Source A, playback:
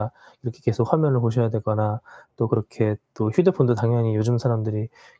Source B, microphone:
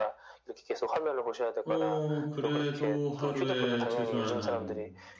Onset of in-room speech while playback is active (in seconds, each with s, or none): 1.6 s